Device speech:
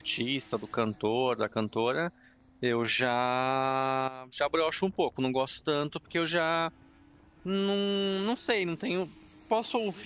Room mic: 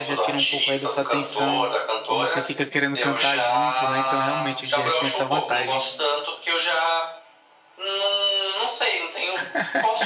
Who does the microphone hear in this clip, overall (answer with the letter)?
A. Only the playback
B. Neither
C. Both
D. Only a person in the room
C